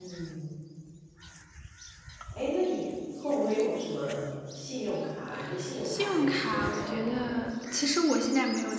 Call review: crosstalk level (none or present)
present